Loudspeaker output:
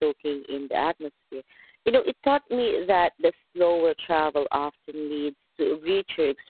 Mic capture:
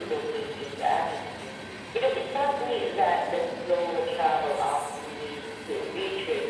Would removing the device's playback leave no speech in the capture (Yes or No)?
Yes